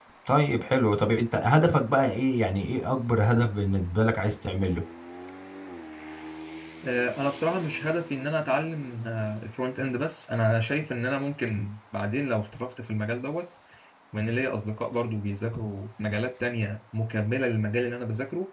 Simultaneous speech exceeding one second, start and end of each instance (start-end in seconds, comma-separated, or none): none